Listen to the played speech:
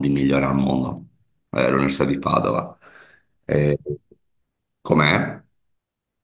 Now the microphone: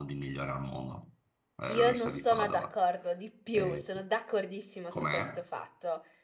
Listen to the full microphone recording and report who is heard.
both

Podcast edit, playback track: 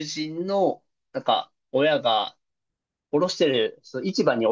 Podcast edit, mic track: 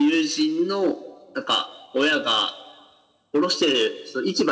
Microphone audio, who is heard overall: echo only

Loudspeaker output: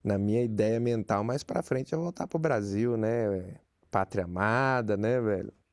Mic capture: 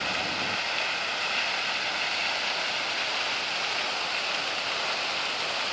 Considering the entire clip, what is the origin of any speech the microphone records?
neither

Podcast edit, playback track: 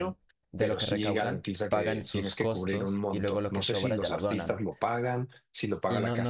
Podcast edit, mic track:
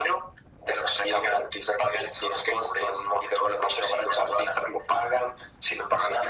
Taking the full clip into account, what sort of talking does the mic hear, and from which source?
echo only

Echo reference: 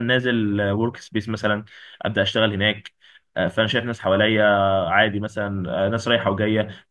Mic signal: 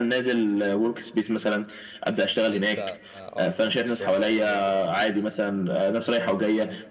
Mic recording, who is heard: both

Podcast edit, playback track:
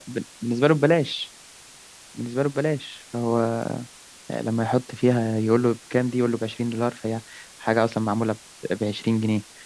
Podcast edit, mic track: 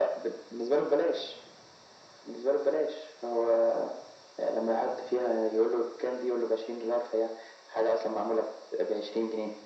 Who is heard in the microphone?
echo only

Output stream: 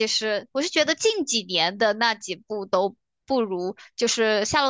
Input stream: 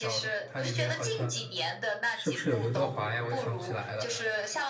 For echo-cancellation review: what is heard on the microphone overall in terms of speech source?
both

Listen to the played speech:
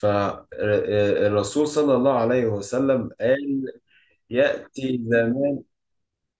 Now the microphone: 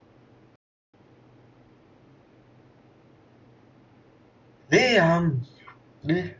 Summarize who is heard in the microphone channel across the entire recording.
user only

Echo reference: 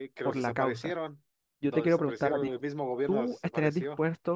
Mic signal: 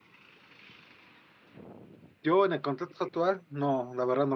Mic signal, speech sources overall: user only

